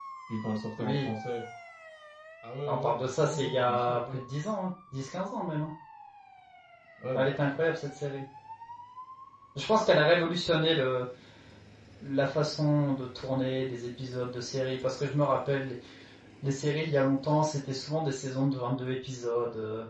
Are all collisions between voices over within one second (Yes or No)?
No